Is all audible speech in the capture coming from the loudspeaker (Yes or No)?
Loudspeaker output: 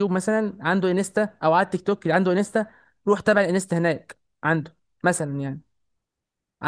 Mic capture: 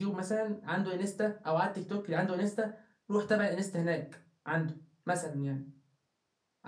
Yes